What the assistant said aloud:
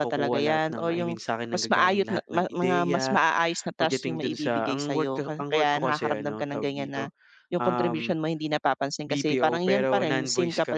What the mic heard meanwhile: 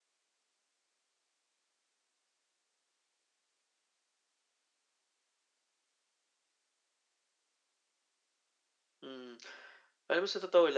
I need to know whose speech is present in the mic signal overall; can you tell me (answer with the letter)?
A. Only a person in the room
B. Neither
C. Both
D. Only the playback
A